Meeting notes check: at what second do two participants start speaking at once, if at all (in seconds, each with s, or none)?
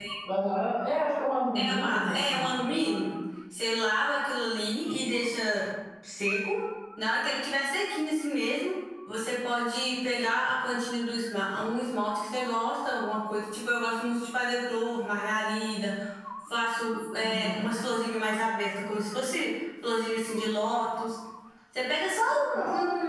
1.6 s